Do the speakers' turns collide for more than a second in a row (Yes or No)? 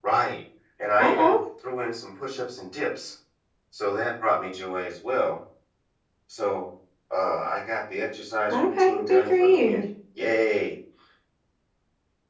Yes